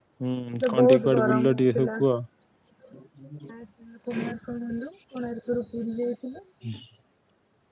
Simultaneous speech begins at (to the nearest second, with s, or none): 1 s